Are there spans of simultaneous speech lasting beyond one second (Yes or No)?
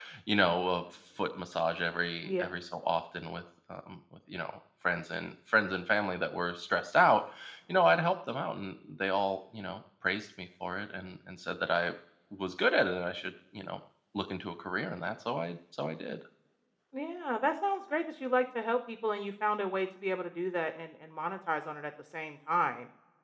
No